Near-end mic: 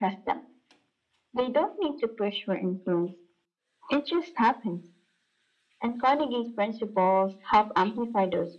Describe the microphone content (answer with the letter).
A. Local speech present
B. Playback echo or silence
B